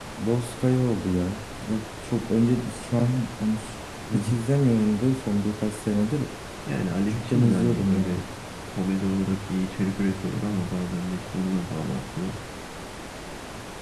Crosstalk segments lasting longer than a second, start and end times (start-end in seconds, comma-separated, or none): 7.0-8.2